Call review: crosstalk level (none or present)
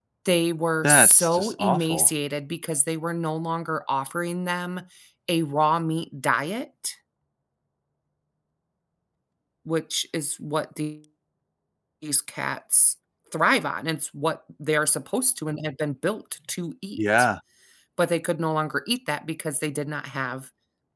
present